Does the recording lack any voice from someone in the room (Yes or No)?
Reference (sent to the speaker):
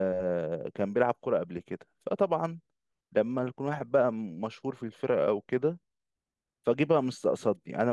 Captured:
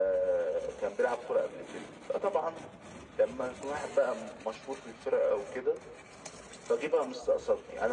Yes